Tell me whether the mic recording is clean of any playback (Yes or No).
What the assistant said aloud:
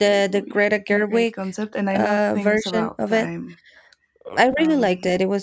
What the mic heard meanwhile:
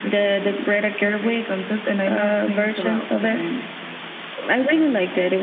No